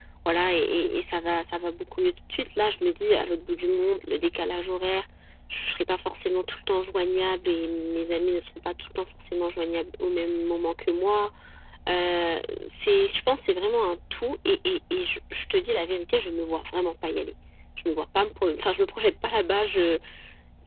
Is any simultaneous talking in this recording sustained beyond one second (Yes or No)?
No